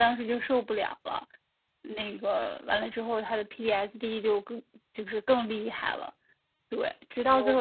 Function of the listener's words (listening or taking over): listening